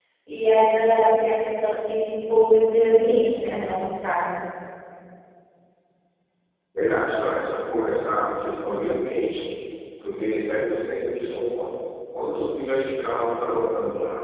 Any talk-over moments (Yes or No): No